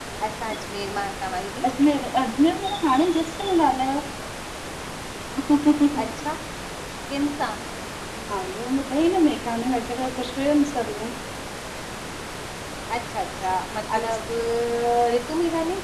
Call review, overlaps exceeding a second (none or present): none